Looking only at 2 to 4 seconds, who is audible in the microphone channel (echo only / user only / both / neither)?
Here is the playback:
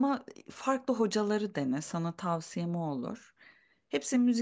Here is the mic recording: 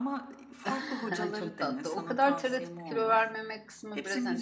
both